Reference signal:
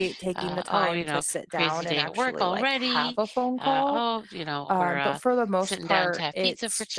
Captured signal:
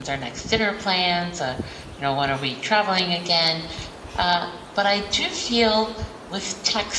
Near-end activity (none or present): present